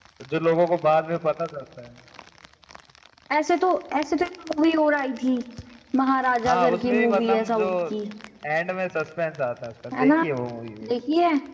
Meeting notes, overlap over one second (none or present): present